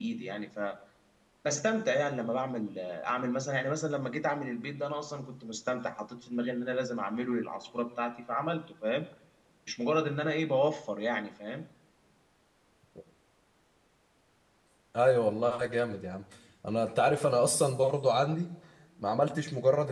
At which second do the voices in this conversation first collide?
none

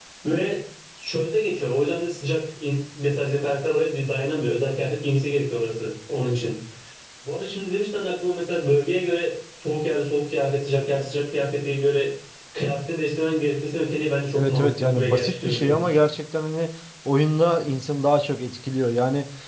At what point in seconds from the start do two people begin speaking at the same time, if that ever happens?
14.3 s

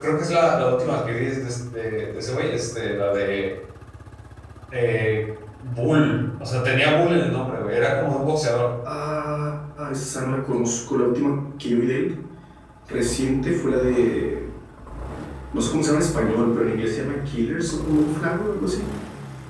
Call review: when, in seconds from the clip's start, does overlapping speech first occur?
none

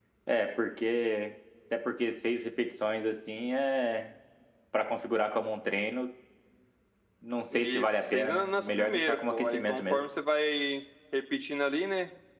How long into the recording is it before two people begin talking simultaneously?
7.5 s

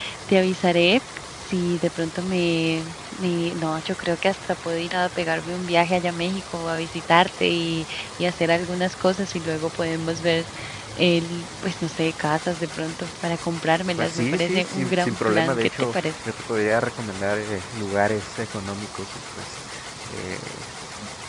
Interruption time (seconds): 14.0 s

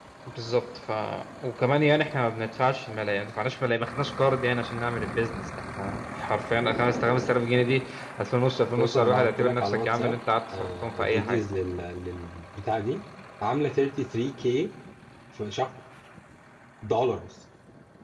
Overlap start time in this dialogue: 8.8 s

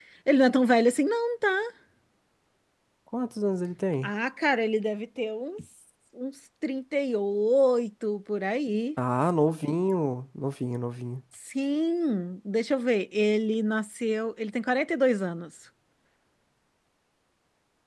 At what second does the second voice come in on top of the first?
none

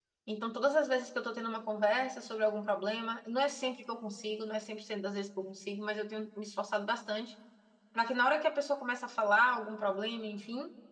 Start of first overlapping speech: none

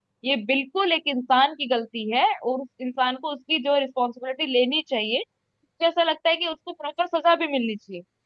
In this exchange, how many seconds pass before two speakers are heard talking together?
none

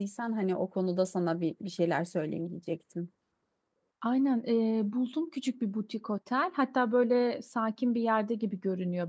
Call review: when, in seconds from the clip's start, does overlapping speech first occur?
none

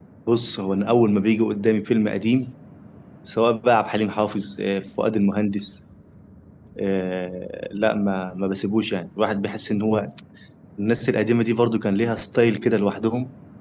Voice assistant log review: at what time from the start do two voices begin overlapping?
none

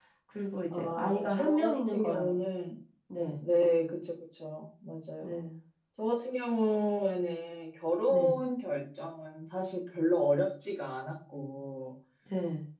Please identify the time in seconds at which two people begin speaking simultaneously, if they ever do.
0.7 s

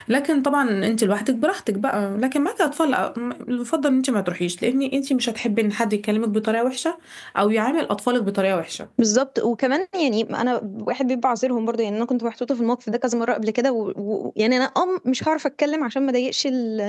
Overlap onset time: none

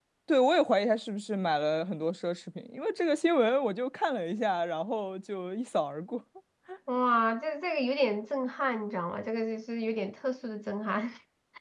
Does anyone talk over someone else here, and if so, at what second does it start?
none

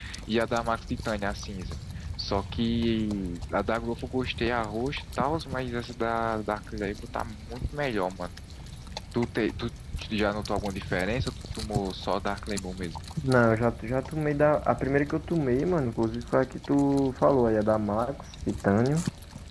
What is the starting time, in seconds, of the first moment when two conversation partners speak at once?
none

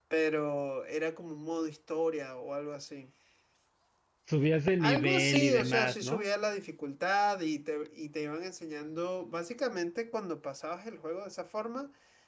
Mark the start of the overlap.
4.8 s

